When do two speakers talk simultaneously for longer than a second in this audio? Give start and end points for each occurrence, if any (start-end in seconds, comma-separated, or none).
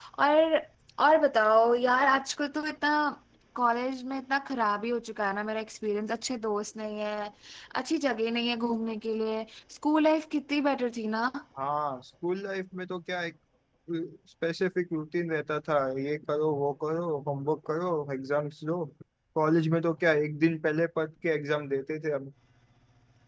none